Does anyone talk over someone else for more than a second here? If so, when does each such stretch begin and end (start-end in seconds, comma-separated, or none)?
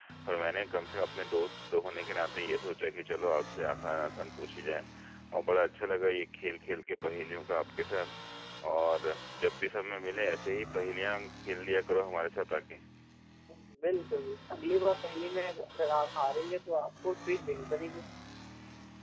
none